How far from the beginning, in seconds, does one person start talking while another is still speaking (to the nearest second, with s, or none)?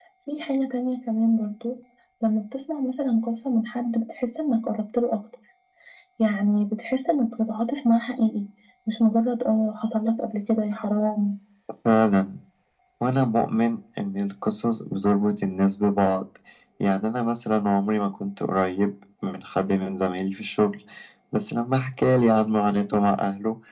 none